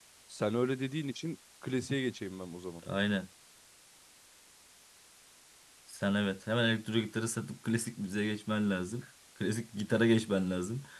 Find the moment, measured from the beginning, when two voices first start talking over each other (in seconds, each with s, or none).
none